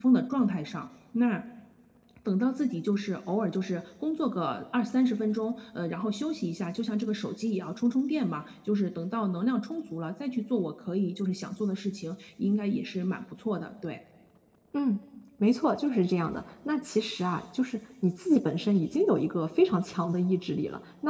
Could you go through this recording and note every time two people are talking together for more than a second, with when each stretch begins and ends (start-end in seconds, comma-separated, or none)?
none